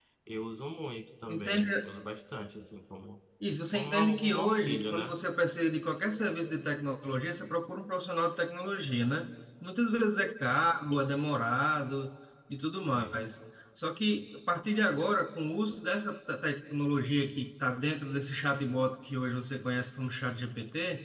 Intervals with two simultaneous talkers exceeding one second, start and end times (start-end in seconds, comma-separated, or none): 3.7-5.1